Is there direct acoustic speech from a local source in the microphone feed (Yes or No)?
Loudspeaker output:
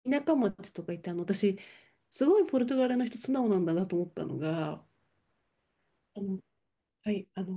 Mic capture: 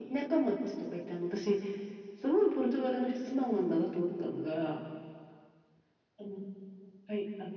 No